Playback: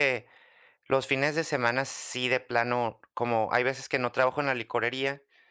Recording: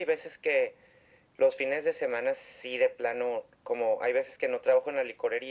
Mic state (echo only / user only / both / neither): echo only